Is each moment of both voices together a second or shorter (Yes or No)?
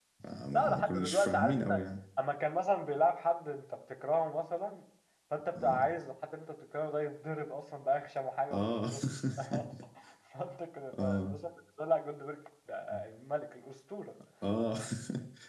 No